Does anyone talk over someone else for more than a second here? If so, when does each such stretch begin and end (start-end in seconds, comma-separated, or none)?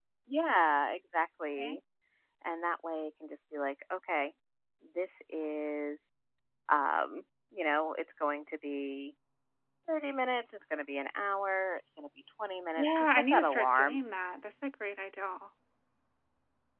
12.8-14.0